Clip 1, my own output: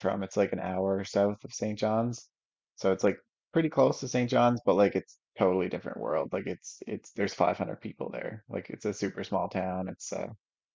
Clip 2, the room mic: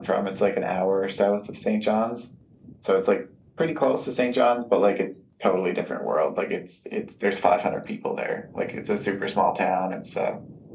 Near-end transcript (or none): none